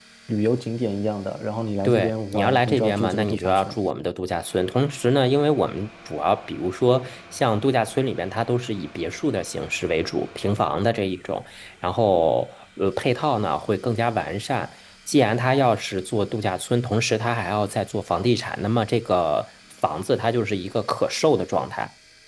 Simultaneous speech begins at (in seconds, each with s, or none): 1.8 s